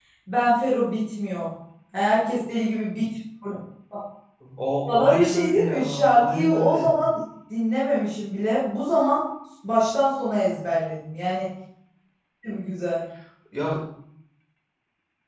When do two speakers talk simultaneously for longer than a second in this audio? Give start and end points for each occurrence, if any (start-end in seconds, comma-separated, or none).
4.9-7.0